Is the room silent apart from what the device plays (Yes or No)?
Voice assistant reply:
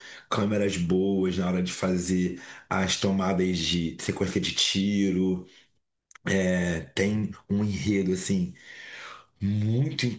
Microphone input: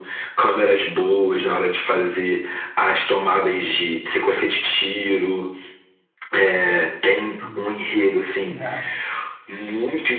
No